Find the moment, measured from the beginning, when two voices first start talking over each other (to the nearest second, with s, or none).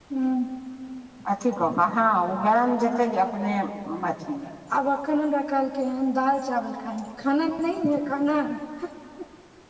none